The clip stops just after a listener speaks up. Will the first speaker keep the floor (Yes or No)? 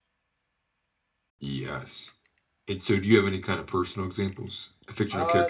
No